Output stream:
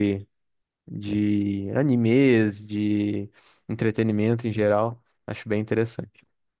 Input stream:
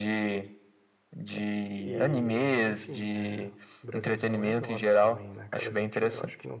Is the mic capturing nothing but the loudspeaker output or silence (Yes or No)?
No